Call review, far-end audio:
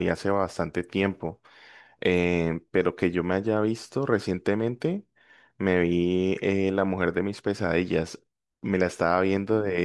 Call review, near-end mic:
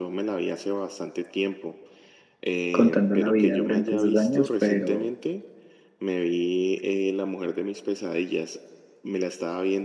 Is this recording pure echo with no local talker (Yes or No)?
No